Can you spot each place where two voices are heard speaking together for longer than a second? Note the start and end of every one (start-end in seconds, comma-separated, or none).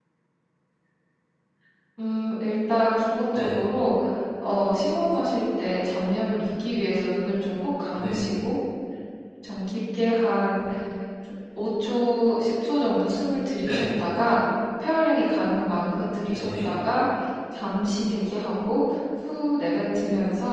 none